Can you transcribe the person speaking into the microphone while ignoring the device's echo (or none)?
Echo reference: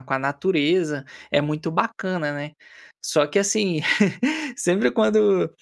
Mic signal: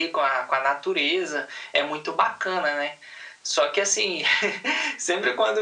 none